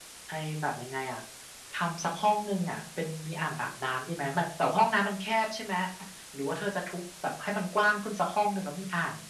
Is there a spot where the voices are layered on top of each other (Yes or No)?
No